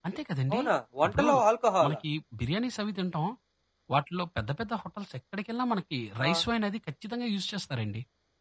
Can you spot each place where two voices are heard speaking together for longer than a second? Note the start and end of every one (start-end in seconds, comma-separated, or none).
none